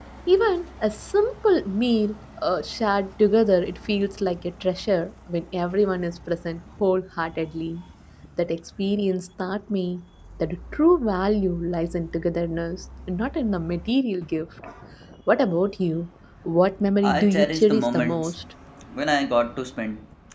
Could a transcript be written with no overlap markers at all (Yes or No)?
No